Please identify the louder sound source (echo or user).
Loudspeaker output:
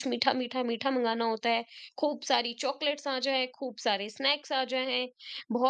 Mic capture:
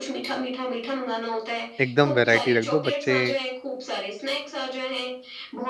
user